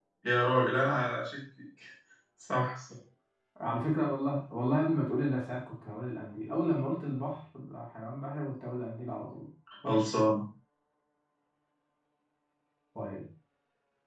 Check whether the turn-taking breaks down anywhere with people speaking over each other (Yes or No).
No